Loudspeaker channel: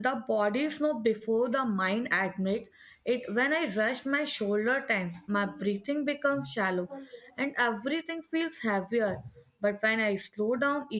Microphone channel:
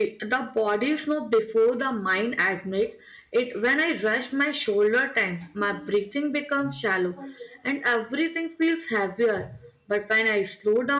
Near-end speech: none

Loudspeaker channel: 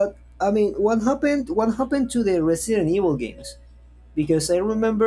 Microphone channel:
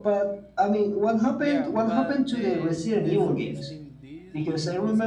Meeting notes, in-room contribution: present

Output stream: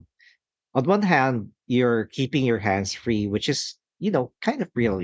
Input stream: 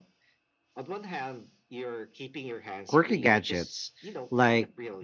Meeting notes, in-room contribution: present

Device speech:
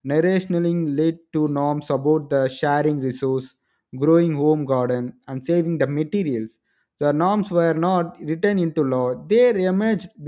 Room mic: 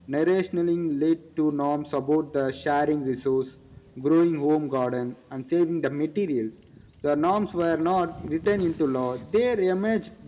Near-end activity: none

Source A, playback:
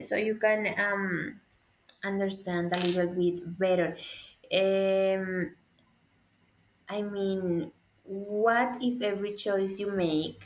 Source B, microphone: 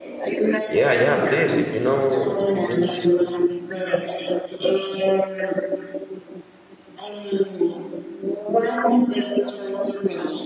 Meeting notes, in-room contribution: present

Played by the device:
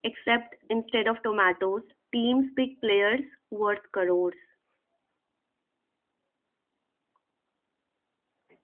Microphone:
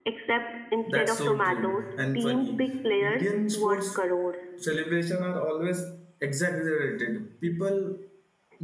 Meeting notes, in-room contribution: present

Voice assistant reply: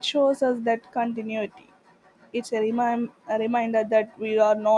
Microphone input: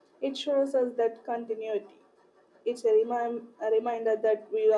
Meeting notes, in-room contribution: none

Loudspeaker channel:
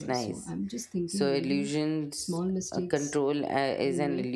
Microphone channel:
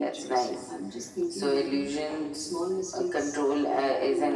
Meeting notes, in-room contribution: none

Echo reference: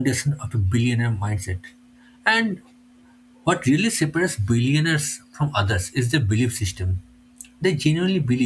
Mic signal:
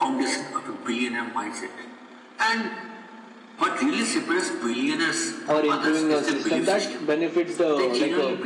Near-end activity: present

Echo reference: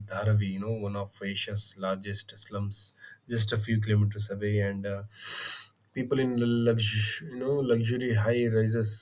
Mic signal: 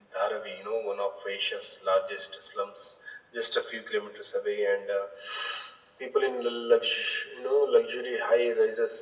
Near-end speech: none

